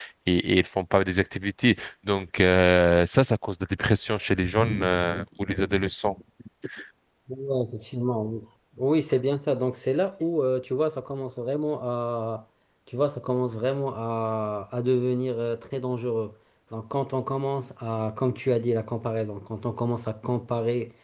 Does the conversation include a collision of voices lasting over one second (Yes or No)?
No